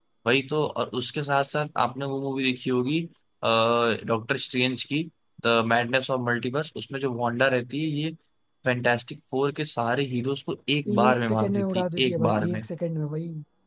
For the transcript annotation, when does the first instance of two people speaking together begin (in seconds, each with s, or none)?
10.8 s